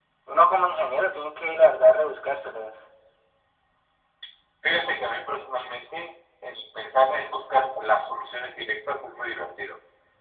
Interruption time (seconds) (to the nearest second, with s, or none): none